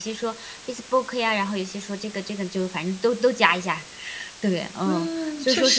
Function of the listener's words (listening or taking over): taking over